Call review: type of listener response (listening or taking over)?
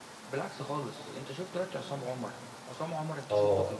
taking over